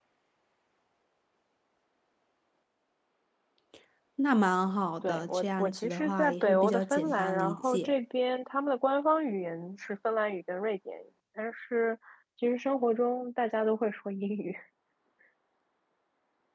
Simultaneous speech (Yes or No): Yes